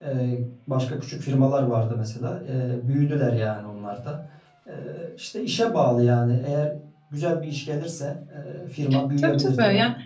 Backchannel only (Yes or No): No